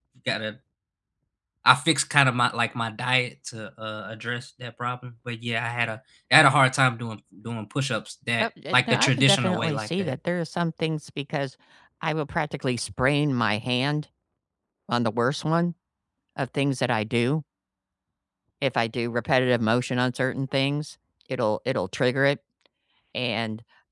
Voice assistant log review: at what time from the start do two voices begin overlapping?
8.4 s

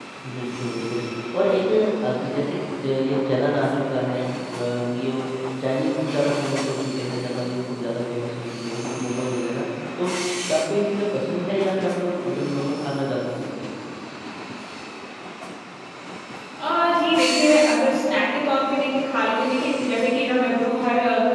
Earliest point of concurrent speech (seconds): none

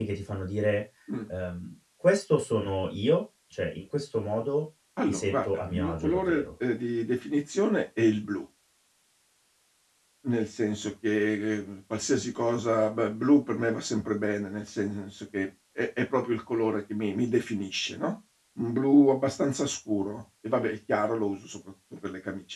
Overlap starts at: 5.0 s

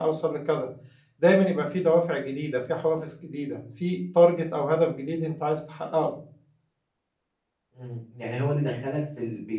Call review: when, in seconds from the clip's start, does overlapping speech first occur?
none

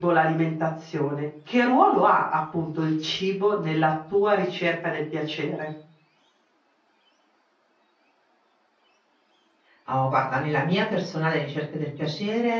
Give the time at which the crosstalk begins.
none

